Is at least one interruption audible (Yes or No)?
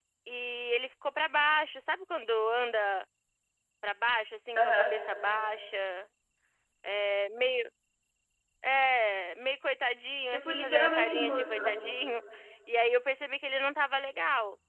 Yes